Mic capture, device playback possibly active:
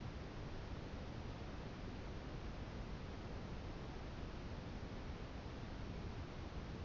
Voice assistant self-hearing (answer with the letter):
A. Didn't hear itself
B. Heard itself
A